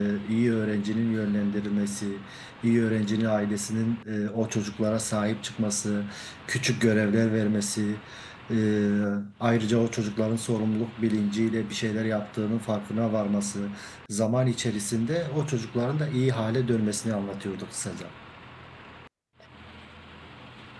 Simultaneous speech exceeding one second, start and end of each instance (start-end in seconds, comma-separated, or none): none